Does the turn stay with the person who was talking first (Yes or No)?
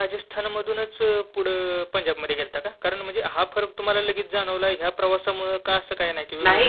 No